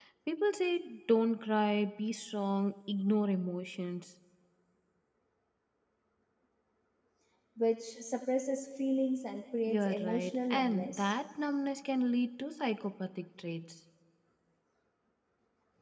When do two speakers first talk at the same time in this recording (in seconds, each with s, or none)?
9.7 s